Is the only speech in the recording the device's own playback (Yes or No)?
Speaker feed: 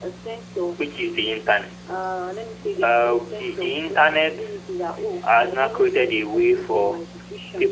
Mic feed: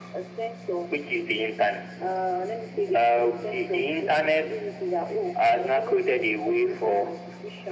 Yes